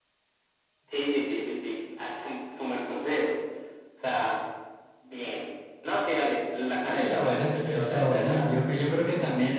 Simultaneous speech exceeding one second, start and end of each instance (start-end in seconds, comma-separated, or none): 7.0-8.7